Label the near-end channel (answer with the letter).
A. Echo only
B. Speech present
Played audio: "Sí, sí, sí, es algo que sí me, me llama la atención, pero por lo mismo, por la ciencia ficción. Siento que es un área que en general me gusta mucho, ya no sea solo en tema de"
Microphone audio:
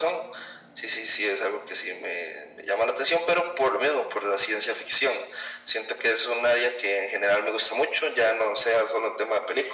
A